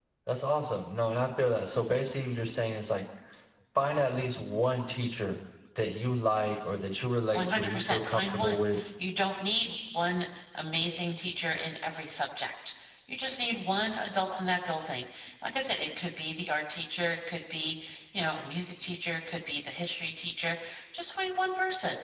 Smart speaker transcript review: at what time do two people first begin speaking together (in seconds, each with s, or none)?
7.3 s